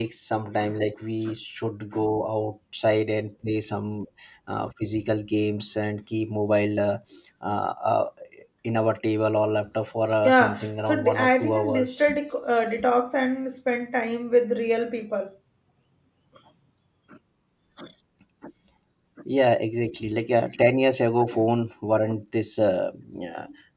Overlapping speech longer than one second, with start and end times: 10.2-12.1

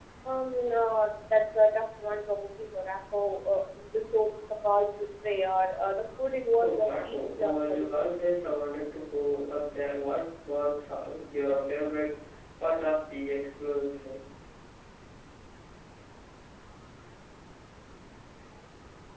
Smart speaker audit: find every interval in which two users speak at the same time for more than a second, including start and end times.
6.5-8.3

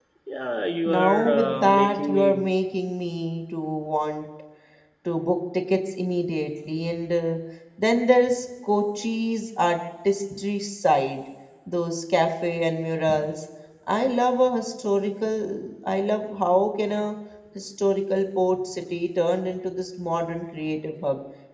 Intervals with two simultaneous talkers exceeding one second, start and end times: 0.8-2.5

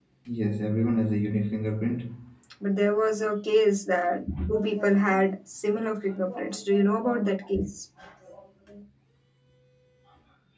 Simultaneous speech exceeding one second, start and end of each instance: none

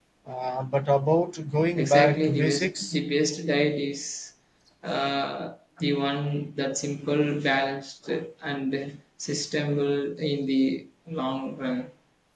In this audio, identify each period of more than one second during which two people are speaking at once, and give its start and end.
1.8-3.0

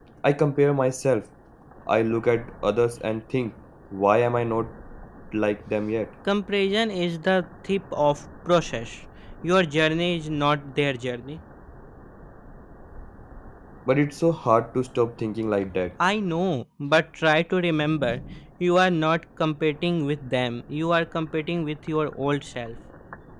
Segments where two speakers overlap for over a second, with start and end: none

